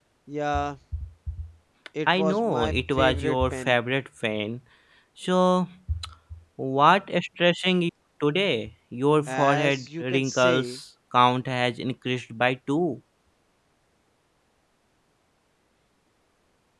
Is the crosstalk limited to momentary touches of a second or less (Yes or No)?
No